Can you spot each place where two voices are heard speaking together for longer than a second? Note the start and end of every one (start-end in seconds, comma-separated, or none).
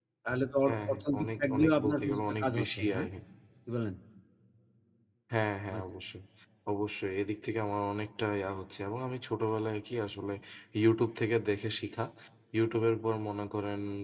0.7-3.0